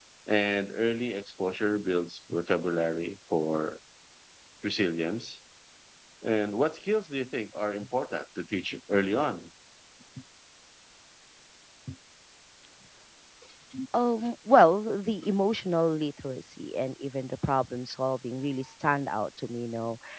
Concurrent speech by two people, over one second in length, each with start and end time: none

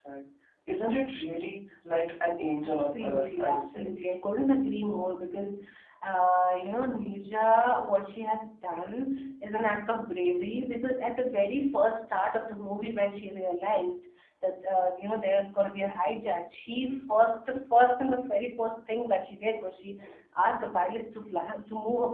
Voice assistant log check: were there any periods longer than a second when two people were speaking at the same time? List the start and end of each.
2.6-3.9

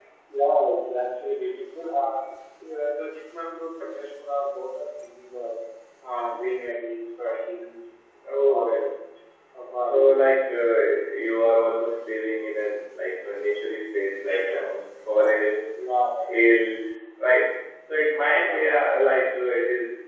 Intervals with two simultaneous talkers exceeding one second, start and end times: 14.2-15.5

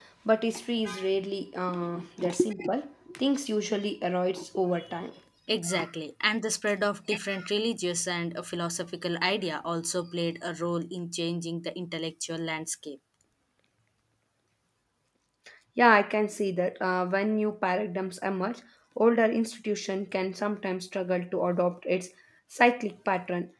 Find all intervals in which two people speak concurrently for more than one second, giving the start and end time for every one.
none

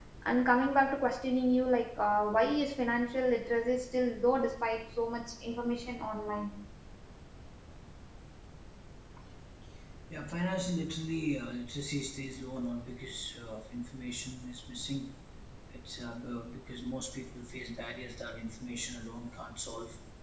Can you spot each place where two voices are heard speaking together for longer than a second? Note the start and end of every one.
none

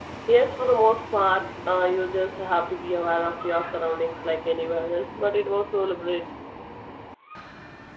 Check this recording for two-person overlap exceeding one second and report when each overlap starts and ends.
none

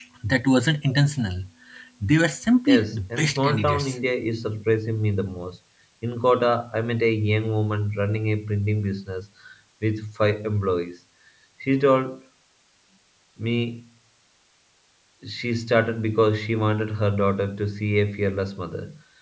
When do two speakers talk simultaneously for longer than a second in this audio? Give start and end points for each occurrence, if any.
2.7-3.9

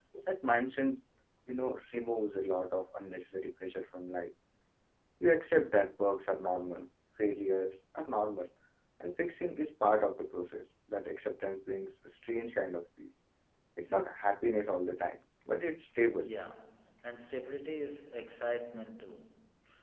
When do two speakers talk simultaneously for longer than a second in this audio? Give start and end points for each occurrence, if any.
none

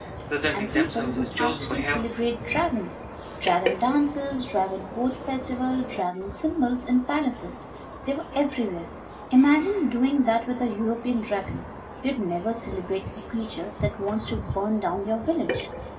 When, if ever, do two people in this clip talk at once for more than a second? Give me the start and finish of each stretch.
0.5-2.1

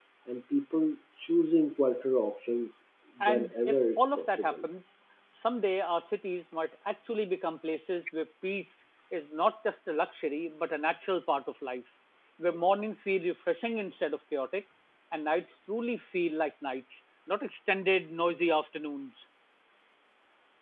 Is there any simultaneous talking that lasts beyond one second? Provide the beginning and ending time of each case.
3.2-4.5

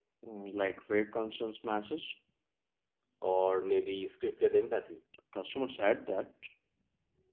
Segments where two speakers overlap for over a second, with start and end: none

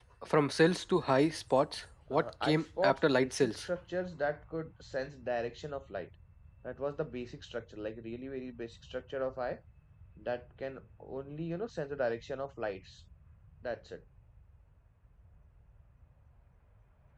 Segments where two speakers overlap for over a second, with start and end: 2.1-3.7

